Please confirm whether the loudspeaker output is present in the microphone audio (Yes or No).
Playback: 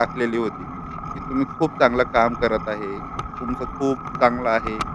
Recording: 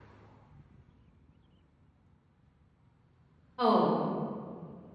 No